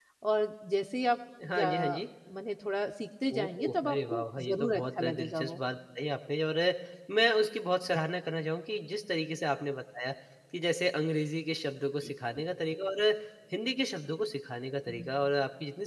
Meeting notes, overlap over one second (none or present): present